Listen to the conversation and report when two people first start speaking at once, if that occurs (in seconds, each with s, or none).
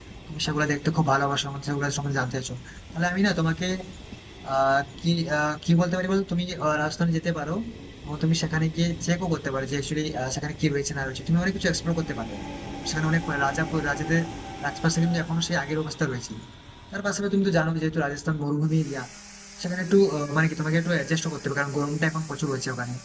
none